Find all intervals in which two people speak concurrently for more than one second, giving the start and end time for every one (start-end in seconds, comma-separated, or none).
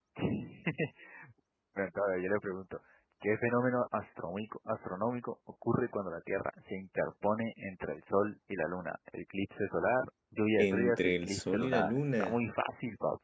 10.6-12.4